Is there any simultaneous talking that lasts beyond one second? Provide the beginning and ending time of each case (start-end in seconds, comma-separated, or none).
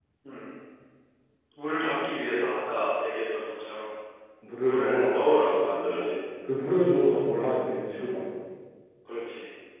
4.6-6.2